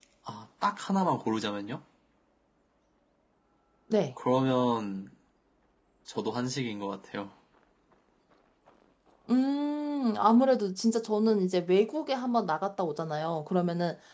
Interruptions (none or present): none